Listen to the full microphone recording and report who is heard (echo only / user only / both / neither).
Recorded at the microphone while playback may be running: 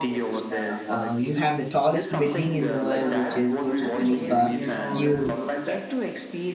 both